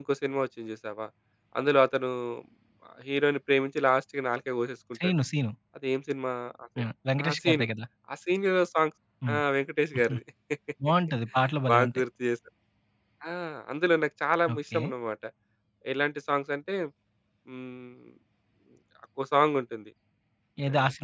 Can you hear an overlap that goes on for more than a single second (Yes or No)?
No